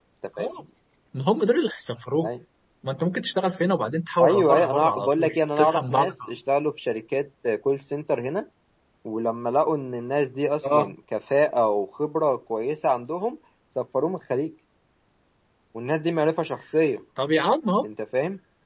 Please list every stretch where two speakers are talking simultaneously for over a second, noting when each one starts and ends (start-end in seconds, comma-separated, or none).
4.2-6.3